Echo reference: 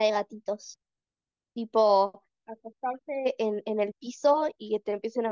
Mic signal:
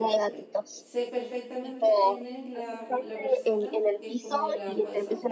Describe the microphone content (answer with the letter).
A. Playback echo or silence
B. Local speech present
B